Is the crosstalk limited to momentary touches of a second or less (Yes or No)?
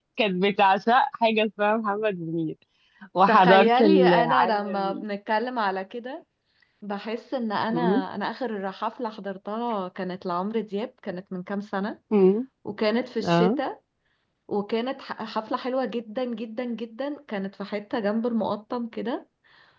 No